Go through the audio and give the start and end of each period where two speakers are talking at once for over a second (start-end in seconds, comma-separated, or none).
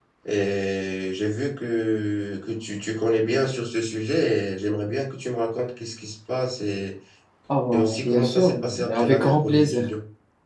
7.7-9.9